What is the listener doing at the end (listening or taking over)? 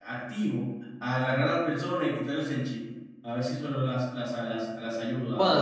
taking over